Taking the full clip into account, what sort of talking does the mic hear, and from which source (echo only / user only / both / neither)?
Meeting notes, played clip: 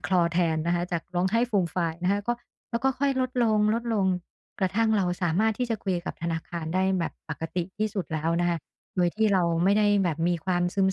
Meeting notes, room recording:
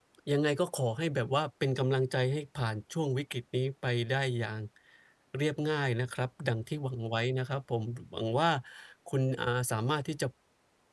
user only